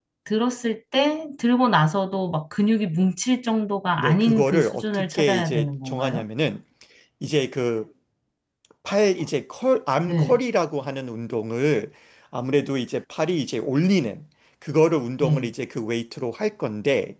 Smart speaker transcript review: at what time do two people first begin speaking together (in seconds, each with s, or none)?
4.0 s